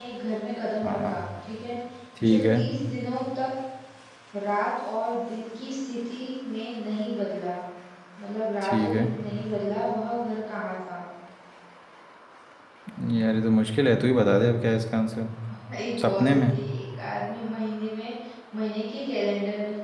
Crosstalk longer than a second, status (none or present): none